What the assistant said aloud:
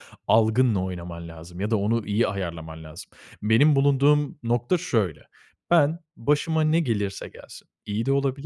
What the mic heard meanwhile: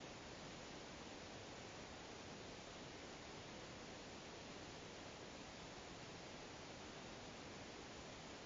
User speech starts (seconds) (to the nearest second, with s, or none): none